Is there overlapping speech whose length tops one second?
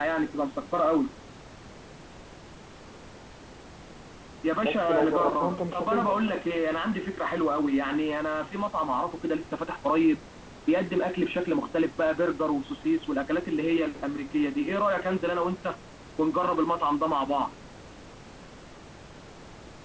Yes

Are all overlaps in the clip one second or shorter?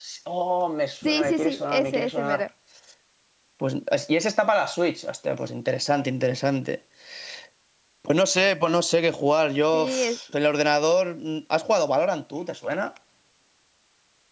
No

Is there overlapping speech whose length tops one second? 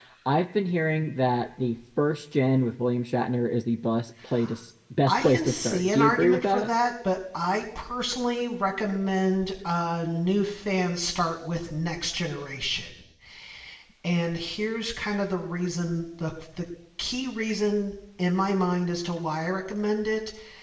Yes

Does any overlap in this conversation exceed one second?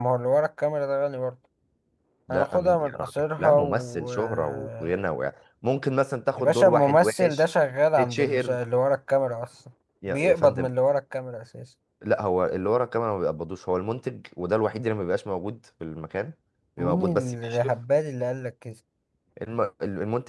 Yes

